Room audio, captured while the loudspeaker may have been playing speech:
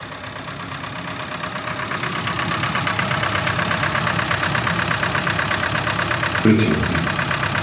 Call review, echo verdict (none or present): none